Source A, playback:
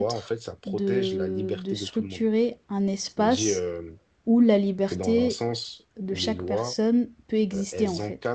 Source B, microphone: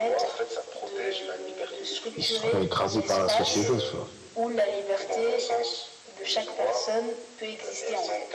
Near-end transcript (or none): ils seront écrasés par la société, tu vois.